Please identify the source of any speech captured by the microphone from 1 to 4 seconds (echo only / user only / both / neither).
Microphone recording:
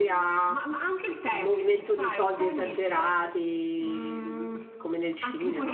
both